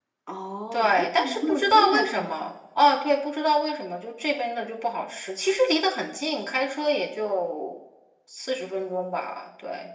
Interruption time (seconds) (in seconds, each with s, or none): 0.7 s